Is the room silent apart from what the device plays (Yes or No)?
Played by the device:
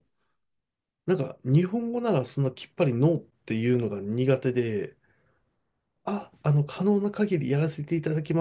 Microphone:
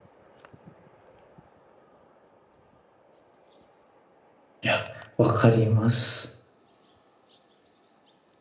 No